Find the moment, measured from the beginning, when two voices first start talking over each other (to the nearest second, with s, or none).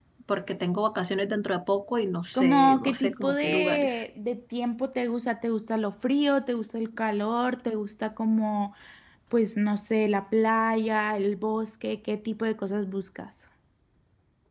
2 s